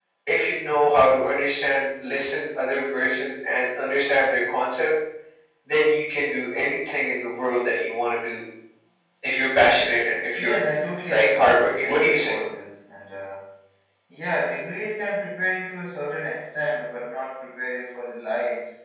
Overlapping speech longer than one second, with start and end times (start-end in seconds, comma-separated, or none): 11.1-12.4